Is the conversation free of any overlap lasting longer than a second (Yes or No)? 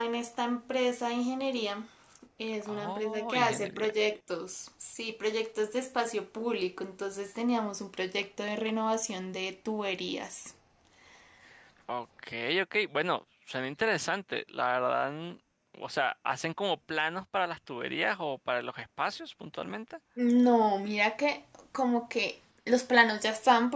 No